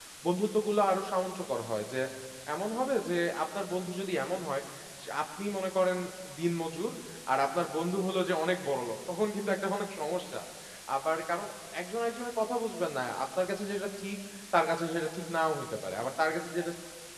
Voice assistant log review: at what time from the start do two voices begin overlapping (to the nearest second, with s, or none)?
none